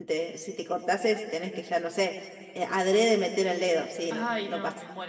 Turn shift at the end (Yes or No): Yes